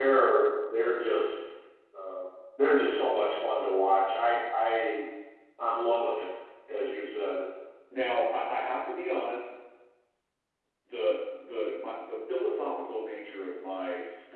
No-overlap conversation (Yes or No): Yes